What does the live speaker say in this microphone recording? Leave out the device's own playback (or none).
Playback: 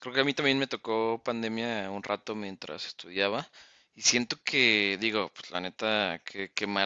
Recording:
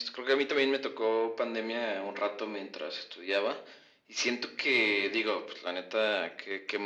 none